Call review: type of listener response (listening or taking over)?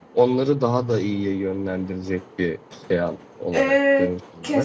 taking over